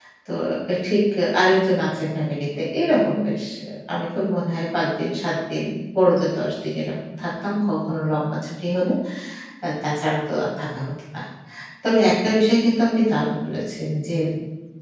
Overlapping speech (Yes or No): No